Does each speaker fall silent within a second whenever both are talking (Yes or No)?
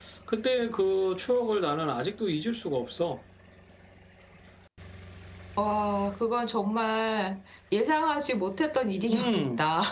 Yes